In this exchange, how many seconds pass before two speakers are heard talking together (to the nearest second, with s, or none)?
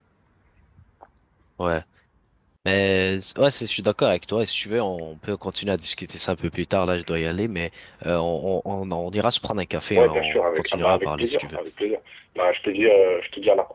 10 s